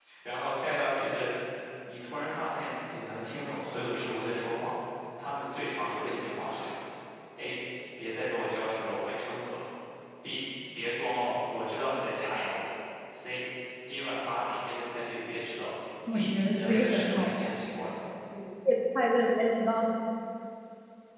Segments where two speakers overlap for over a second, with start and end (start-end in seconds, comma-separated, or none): 16.1-17.8